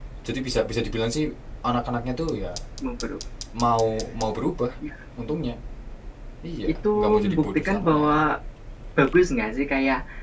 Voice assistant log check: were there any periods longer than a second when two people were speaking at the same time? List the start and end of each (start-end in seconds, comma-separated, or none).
6.8-8.2